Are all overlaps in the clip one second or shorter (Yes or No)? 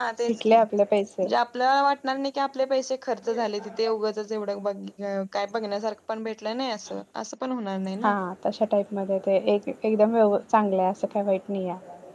Yes